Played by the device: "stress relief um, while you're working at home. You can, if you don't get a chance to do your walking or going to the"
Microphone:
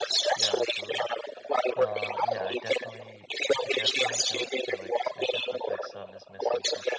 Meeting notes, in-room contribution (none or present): present